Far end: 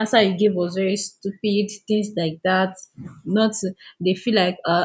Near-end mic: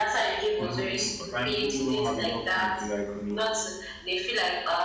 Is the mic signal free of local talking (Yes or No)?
No